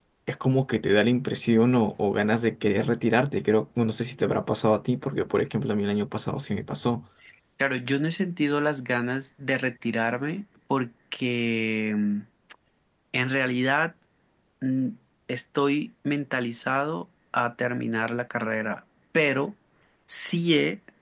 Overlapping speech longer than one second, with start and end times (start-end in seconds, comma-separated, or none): none